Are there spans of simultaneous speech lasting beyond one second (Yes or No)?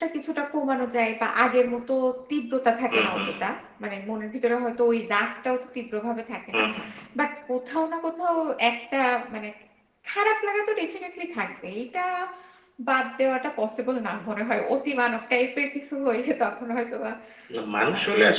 No